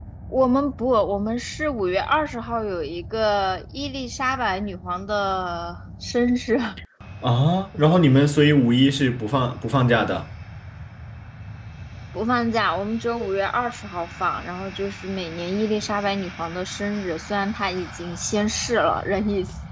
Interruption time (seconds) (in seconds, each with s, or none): none